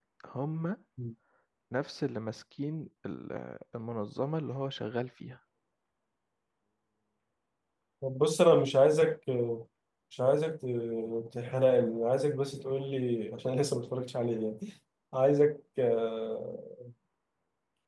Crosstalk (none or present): none